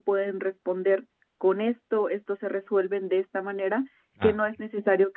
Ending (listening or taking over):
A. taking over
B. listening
B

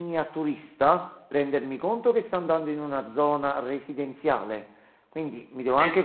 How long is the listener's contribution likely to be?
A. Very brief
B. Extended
A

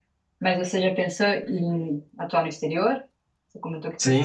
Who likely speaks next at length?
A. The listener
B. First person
A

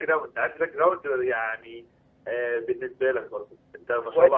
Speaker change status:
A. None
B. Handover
B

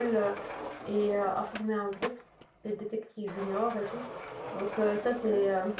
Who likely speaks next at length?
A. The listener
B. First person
B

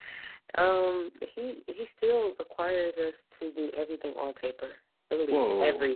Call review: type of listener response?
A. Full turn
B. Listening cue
A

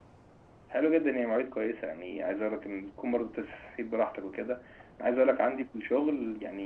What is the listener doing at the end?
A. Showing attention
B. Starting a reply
A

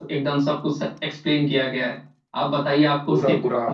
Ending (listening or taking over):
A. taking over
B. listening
B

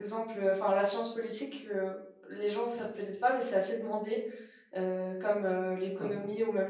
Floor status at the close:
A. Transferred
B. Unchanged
B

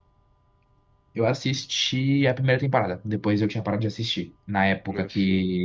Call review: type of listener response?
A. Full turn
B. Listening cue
B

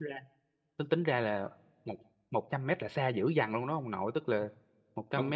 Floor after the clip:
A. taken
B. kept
B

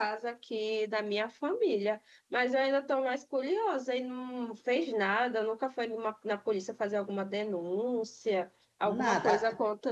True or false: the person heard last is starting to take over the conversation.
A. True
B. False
B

